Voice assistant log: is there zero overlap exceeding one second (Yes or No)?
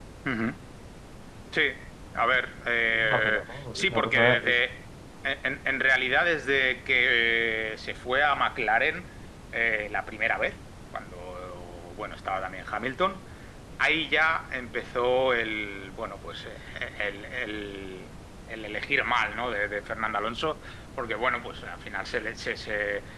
No